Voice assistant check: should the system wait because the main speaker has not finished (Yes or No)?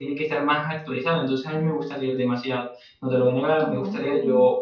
Yes